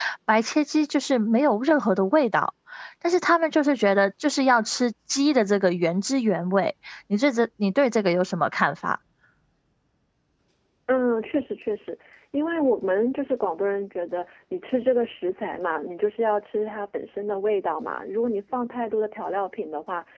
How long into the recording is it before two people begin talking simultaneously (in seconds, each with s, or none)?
none